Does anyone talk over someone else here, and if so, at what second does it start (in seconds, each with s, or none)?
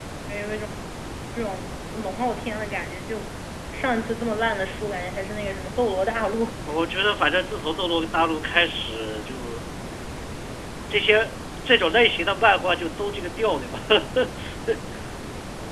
none